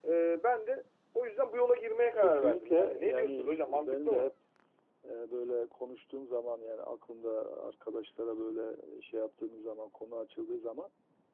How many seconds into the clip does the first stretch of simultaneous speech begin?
1.9 s

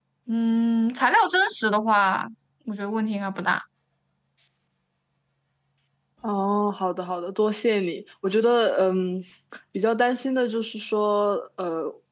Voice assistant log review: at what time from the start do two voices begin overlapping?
none

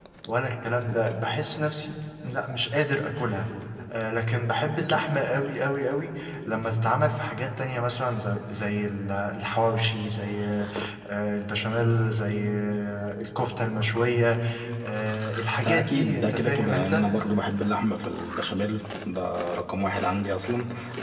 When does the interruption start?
15.7 s

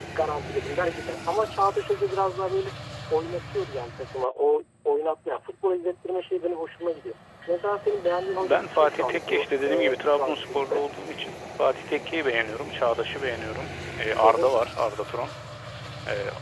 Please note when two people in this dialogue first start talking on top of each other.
8.4 s

